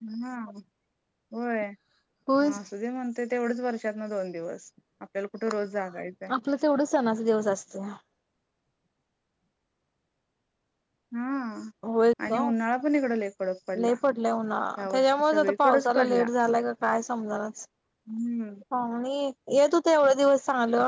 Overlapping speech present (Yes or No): Yes